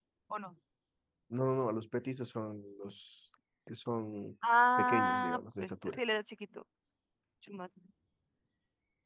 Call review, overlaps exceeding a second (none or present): present